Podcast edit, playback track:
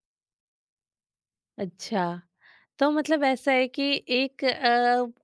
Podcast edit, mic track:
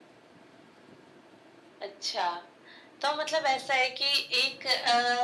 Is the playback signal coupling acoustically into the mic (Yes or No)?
Yes